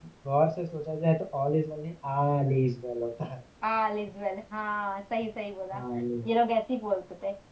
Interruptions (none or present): none